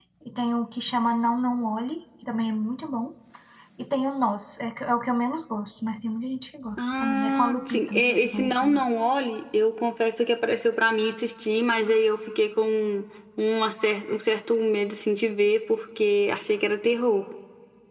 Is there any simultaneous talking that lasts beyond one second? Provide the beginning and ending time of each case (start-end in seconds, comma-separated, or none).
6.8-8.8